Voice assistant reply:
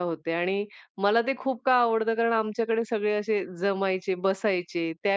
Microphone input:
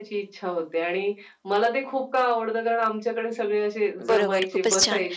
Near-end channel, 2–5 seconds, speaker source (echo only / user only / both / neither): both